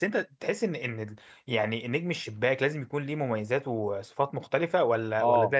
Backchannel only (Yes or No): No